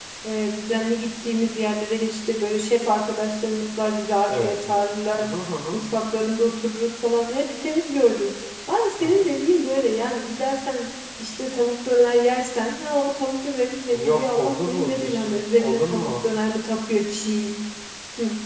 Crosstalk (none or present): present